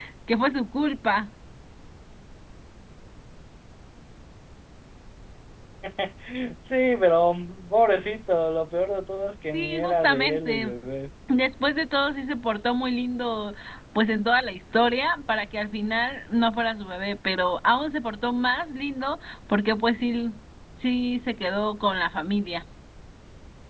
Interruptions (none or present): present